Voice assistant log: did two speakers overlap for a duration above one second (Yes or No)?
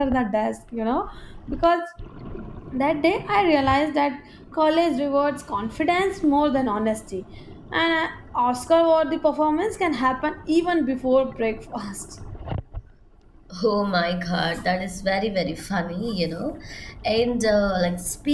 No